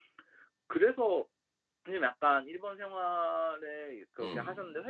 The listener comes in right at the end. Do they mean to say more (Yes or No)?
No